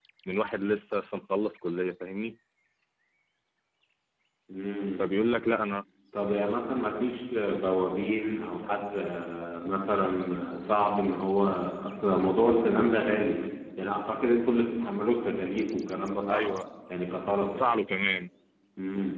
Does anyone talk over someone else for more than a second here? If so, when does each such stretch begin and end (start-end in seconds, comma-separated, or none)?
none